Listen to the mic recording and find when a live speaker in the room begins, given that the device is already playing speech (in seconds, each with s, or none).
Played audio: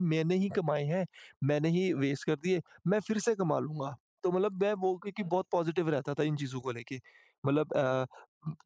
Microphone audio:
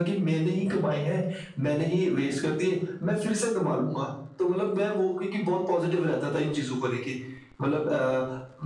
none